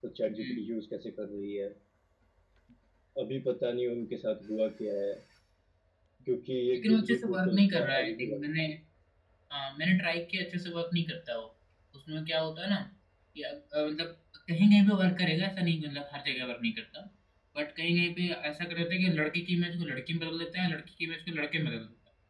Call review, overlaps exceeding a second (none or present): present